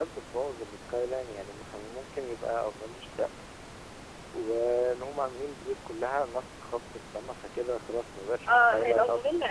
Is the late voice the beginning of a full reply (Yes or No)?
Yes